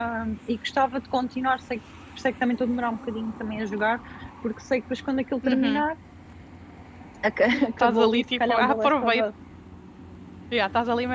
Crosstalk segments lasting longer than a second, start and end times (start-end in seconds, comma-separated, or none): 7.8-9.2